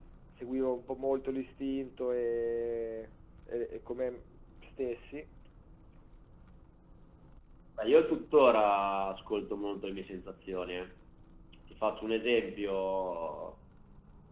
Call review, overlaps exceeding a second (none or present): none